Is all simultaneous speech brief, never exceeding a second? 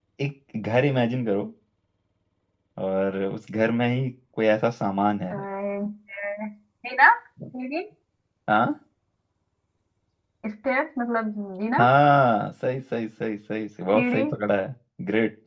Yes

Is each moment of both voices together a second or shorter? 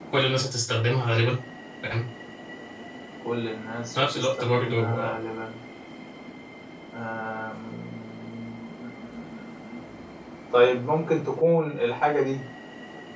No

